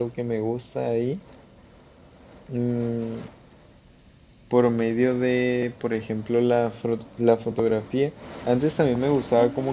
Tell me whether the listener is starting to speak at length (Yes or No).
No